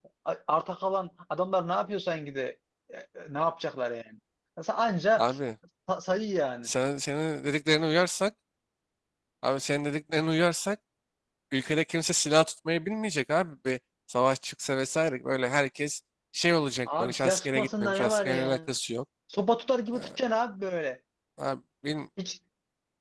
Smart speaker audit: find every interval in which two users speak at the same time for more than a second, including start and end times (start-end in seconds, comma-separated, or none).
16.9-18.7